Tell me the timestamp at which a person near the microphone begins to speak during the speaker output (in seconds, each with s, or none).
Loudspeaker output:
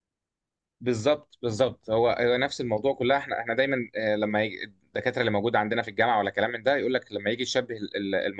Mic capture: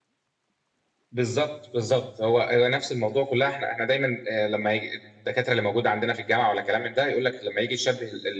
none